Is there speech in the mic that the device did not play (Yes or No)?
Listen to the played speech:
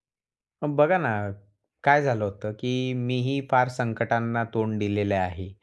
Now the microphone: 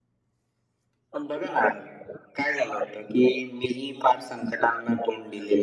No